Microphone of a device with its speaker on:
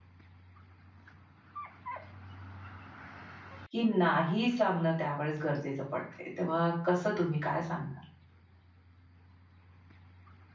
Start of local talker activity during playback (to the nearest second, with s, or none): 4 s